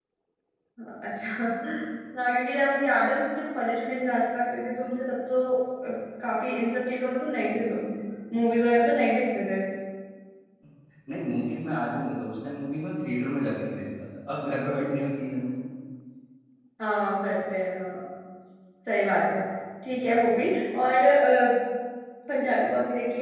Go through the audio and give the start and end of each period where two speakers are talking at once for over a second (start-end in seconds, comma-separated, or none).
none